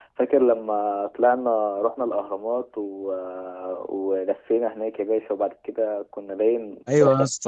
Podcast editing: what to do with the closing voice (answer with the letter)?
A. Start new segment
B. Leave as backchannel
A